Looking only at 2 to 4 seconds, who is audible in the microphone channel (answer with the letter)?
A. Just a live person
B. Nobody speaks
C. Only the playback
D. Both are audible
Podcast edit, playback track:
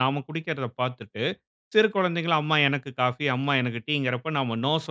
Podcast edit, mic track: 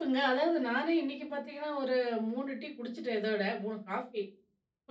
A